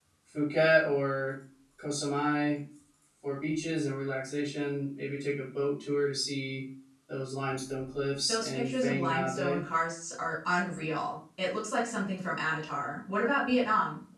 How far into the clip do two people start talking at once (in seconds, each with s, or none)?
8.3 s